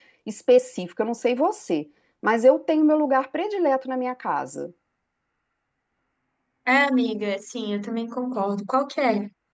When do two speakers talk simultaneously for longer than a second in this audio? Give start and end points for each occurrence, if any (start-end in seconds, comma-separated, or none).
none